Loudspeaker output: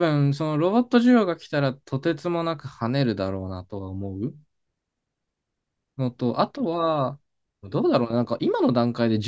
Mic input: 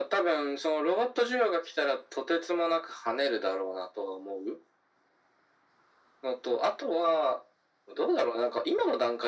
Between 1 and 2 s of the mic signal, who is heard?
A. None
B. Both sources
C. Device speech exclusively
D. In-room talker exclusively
C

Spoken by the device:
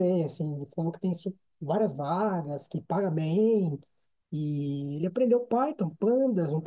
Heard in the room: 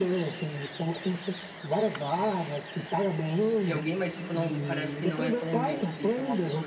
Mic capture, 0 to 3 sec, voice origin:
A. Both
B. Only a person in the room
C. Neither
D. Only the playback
D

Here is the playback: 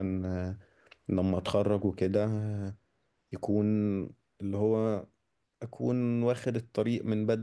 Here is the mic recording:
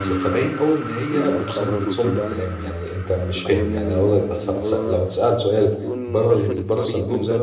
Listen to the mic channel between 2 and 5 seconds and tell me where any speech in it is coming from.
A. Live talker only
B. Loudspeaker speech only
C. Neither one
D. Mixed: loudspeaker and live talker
D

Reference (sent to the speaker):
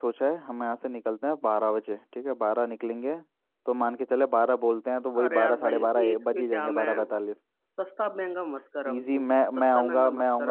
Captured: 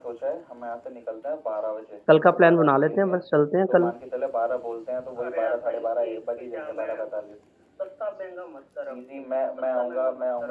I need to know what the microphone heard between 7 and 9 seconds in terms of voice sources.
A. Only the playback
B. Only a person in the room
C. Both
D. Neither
A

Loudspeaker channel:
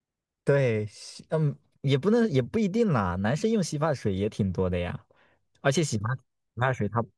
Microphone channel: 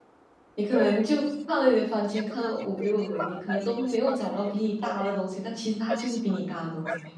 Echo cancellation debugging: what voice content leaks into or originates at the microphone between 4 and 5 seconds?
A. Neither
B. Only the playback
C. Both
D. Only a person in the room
C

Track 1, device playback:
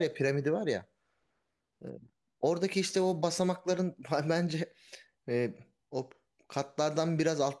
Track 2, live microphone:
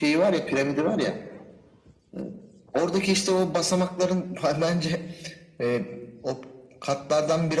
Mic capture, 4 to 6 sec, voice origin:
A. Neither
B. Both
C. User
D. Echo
D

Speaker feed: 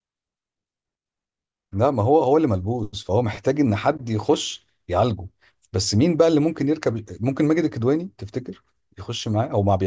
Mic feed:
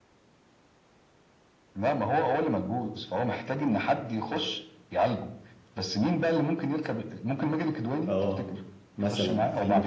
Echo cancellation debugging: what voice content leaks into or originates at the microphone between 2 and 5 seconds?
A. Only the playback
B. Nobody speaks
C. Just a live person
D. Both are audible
A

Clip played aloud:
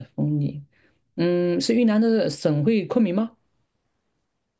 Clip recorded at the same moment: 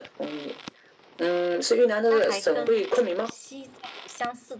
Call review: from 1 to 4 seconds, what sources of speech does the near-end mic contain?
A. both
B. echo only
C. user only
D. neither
A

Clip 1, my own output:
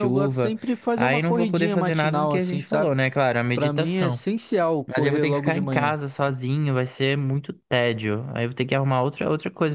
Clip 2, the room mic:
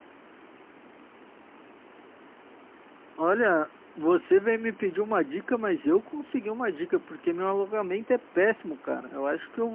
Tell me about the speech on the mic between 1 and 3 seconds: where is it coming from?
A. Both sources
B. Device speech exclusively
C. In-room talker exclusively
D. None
D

